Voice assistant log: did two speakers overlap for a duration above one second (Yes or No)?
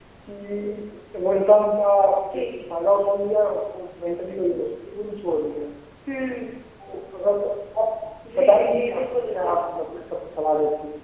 Yes